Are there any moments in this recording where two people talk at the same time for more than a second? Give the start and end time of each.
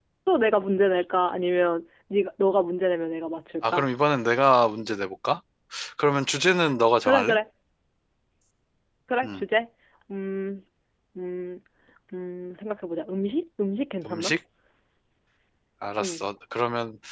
none

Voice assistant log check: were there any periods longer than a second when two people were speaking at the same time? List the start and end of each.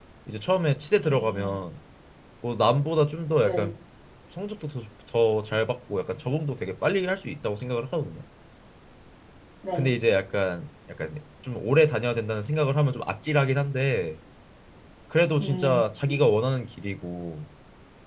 none

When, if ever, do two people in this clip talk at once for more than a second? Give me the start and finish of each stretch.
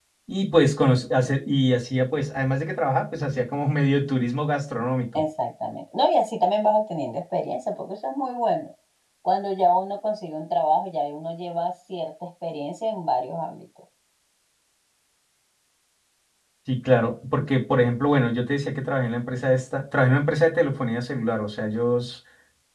none

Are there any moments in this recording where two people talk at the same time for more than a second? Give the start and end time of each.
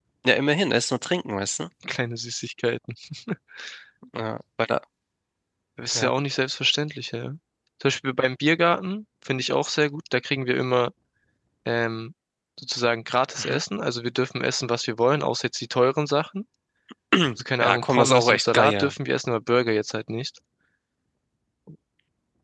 17.6-18.9

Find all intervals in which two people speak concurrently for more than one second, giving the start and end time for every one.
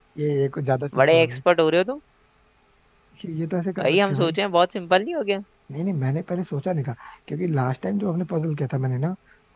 none

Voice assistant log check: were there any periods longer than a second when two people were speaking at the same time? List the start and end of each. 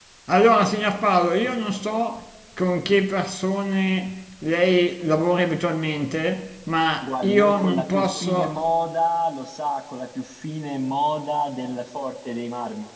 7.0-8.6

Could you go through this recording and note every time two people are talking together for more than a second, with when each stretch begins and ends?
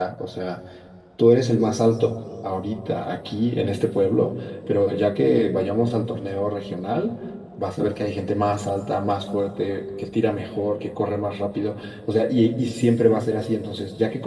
none

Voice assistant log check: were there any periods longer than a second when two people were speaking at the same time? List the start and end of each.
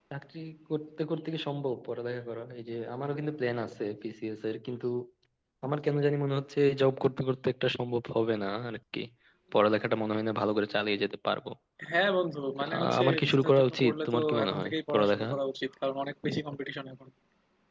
12.8-15.3

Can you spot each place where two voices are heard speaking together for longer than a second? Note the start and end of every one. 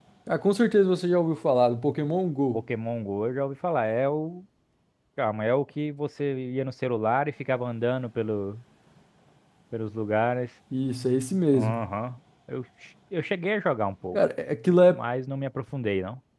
none

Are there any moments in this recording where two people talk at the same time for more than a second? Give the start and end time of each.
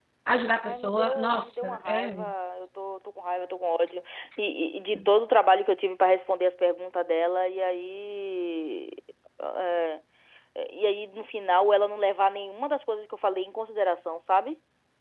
0.6-2.1

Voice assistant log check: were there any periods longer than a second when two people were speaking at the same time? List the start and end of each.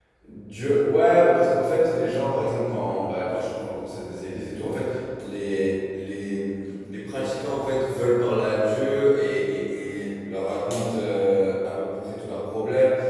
none

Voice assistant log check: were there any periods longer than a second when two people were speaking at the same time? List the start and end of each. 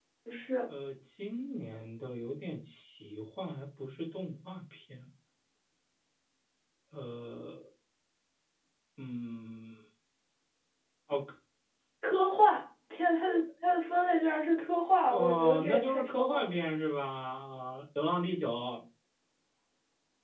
15.1-16.6

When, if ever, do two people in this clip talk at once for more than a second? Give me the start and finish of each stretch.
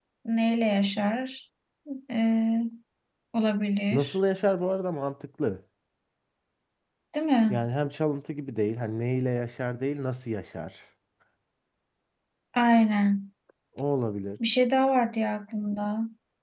none

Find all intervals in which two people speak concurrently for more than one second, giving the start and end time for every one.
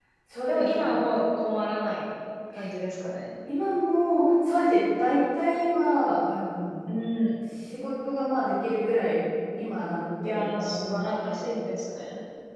10.2-11.5

